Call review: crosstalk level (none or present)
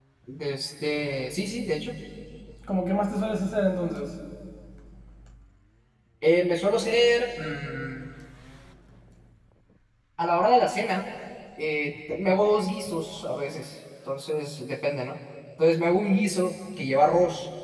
none